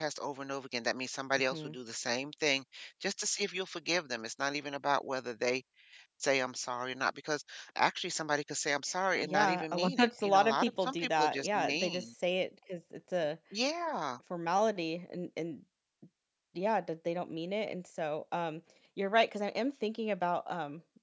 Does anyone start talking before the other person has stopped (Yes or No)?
Yes